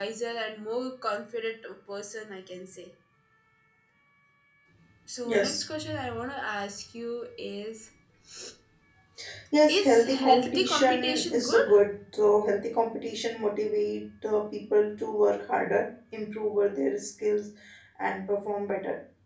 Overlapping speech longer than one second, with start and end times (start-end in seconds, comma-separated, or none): 9.7-11.7